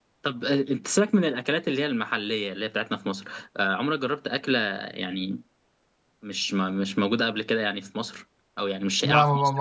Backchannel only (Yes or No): No